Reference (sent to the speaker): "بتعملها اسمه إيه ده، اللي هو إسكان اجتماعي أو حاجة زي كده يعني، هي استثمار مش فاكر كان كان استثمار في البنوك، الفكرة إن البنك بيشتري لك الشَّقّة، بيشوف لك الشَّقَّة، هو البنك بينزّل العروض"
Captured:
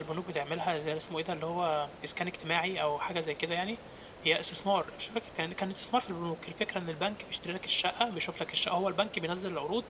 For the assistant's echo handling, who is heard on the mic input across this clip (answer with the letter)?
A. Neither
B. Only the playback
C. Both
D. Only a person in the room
B